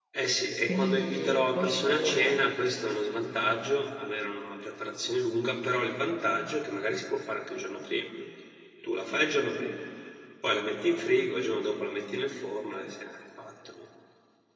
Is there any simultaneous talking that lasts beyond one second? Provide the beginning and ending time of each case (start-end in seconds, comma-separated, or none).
0.7-2.4